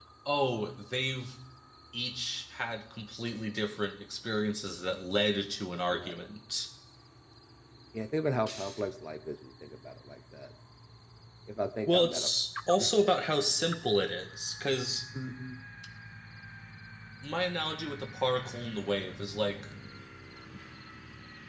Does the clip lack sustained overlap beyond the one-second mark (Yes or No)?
Yes